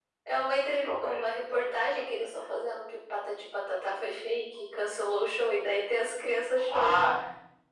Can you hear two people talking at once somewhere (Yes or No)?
Yes